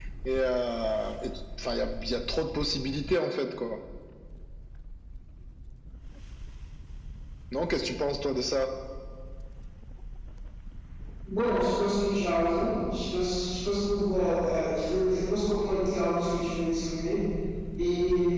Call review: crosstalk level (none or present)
none